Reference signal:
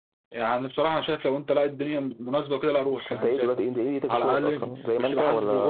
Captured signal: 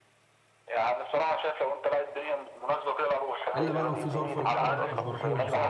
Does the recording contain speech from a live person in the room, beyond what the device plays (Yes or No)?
Yes